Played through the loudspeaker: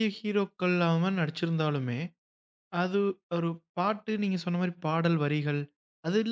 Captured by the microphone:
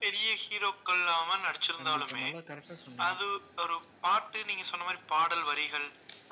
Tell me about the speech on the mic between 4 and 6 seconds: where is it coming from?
echo only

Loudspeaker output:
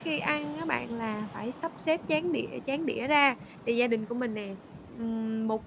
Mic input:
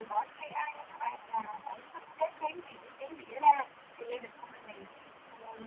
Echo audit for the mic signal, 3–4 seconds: echo only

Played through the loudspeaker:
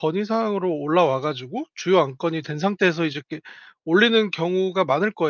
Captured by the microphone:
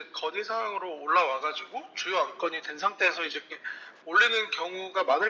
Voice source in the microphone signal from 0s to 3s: echo only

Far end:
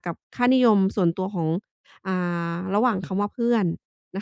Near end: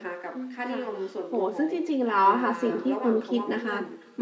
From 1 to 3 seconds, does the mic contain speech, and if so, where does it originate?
both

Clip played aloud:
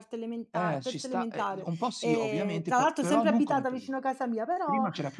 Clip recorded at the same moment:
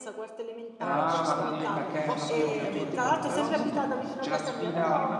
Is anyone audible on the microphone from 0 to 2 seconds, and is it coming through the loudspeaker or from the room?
both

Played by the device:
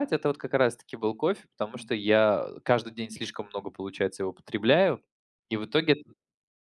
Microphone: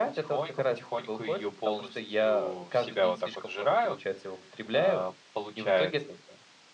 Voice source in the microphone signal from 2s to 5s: both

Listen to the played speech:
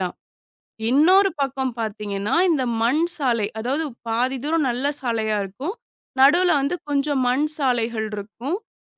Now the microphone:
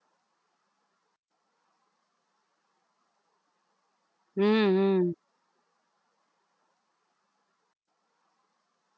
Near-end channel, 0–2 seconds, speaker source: neither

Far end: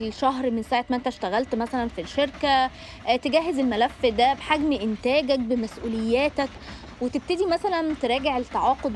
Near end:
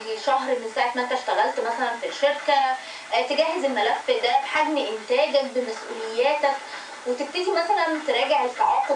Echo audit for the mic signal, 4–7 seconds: echo only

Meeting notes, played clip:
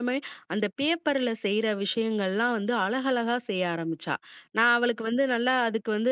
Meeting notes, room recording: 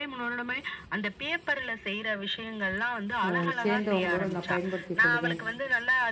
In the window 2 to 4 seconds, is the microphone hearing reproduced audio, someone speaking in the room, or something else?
both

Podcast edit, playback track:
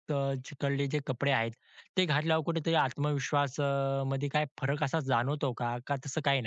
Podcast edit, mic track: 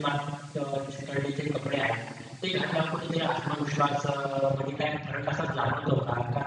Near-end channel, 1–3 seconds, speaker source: echo only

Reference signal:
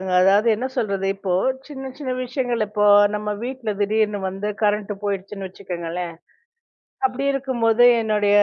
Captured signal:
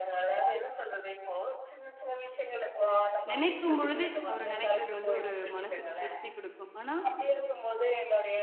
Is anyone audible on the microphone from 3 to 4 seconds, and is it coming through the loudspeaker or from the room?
both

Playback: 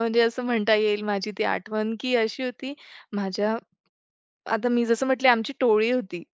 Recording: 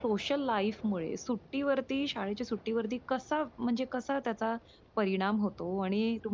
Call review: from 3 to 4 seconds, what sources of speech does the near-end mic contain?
user only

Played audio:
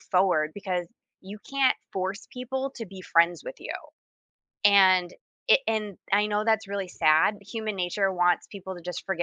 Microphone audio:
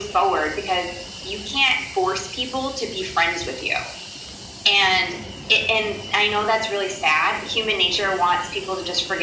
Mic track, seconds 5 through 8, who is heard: echo only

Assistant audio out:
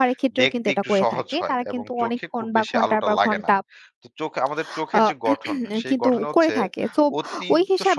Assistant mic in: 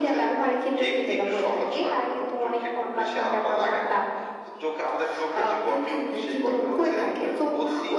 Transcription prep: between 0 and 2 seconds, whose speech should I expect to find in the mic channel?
echo only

